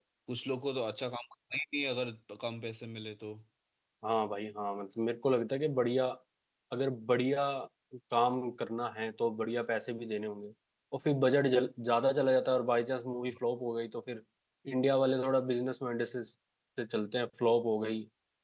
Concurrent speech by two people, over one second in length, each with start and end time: none

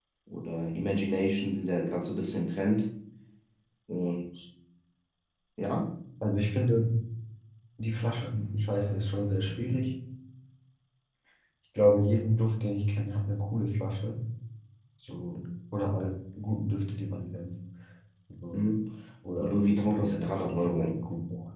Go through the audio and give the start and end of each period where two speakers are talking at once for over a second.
19.4-21.0

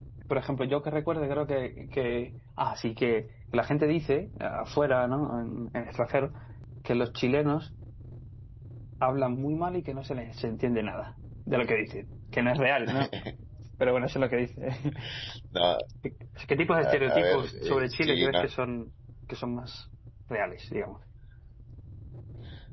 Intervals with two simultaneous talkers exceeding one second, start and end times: 16.8-18.5

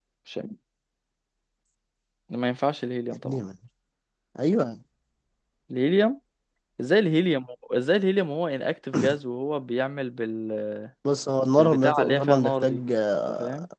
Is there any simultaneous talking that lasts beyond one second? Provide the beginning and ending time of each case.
11.6-12.8

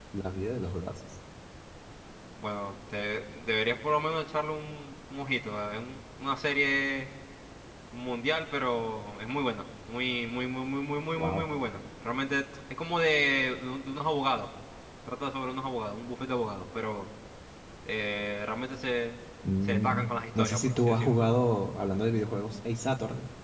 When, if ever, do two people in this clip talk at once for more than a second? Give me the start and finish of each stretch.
19.6-21.2

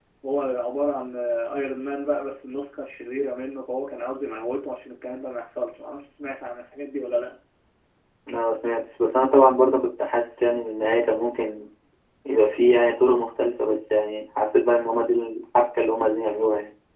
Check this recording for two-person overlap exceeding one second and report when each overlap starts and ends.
none

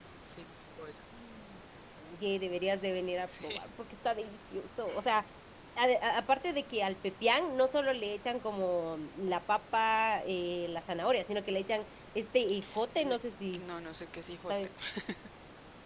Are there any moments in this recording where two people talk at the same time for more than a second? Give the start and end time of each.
none

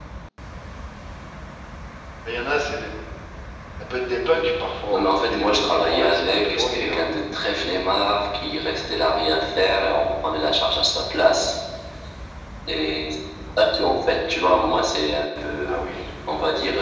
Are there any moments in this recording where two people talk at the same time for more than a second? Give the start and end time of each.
4.9-7.0

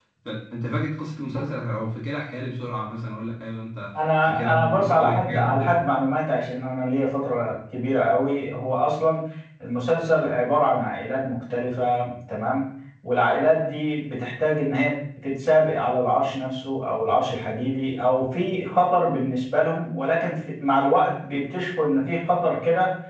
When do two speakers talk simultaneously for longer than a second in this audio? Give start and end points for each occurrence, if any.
4.2-5.8

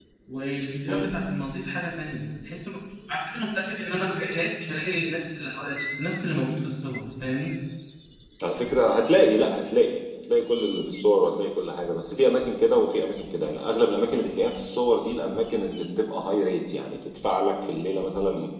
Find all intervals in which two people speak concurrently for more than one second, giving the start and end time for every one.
none

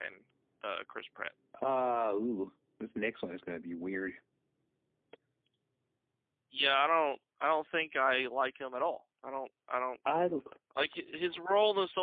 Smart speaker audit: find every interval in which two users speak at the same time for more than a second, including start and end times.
none

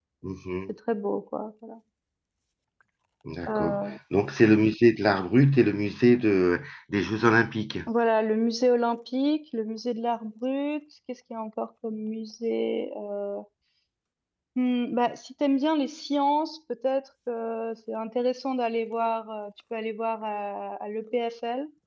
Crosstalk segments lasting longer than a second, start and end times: none

